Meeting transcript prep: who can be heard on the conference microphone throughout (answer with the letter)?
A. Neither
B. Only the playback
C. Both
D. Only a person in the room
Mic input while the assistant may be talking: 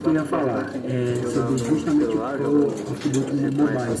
B